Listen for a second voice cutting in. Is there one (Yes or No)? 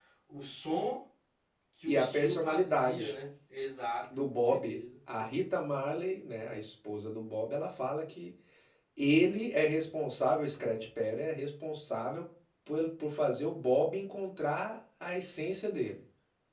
Yes